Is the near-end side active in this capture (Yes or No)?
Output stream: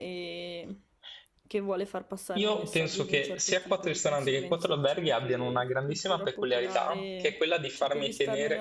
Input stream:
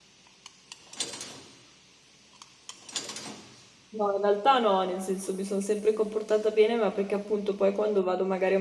Yes